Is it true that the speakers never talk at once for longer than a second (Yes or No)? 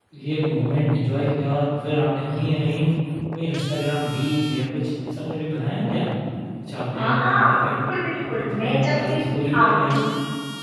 No